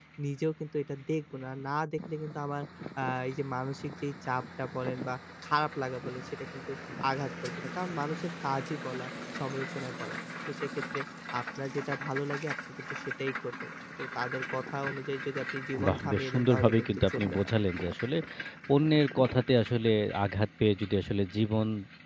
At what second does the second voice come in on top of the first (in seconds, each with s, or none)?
15.8 s